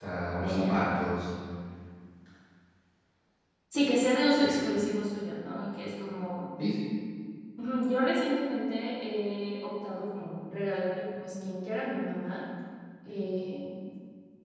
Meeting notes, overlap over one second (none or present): none